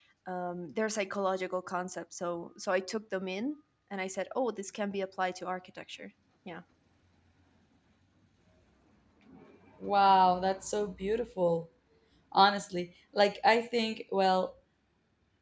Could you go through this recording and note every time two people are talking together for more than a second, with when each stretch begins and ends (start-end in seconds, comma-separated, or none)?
none